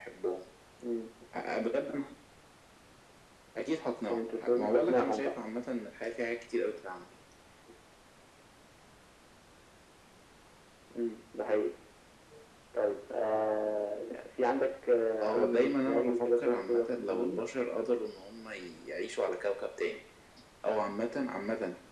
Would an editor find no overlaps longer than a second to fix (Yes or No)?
No